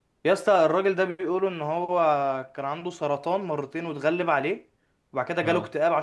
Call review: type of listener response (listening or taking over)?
listening